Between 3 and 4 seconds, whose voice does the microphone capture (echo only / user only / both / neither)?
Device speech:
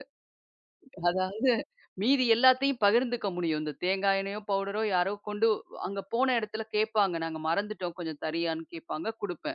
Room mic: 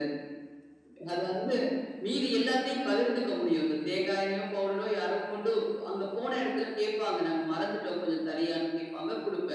echo only